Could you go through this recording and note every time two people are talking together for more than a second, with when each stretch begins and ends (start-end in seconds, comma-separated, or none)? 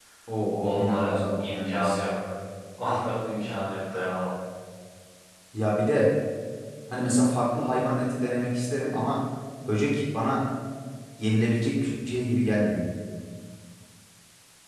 0.7-2.0